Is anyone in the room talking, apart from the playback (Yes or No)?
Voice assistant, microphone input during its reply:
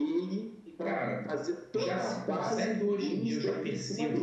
Yes